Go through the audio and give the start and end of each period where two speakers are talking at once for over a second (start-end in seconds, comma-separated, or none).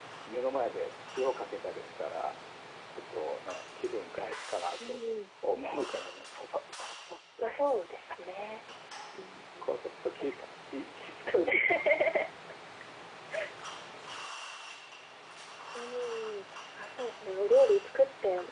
none